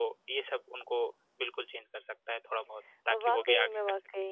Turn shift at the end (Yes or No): Yes